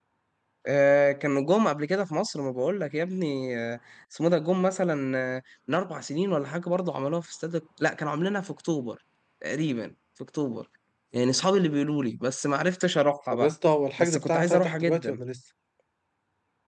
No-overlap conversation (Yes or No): No